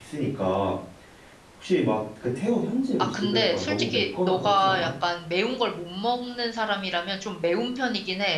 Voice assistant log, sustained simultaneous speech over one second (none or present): present